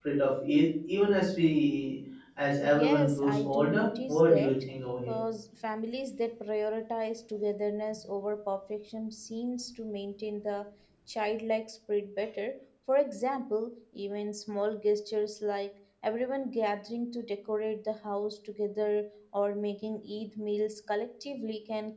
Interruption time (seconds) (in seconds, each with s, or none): 2.6 s